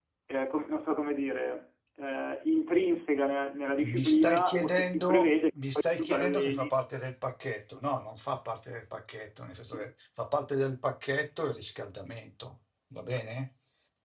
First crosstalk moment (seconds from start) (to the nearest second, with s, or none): 4 s